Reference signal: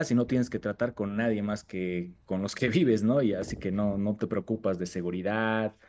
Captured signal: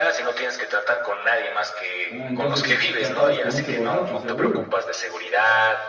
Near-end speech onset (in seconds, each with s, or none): 2.1 s